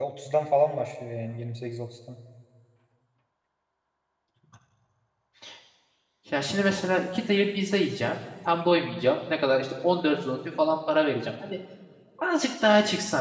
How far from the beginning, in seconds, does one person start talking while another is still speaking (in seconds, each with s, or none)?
none